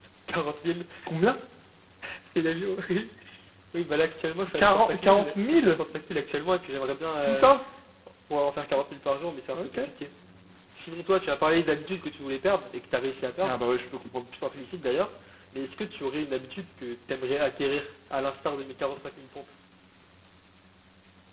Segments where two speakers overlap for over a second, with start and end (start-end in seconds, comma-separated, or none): 4.6-5.8